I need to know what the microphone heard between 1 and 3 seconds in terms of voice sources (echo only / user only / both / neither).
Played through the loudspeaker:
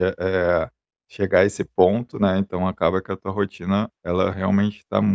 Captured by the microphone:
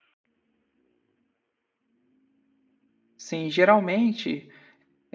neither